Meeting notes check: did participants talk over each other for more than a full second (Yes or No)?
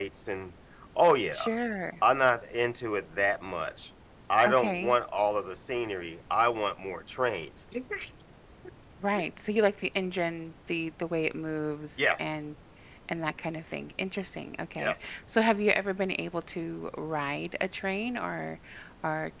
No